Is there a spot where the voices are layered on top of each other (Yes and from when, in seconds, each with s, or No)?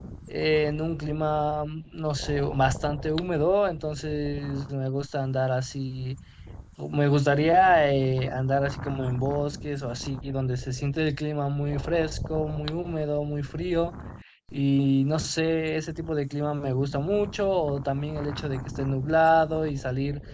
No